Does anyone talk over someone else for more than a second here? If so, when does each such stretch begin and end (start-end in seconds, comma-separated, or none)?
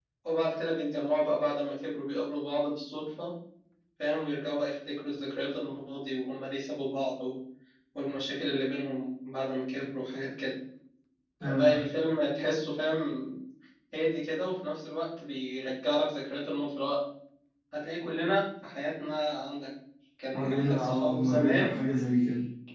20.3-21.7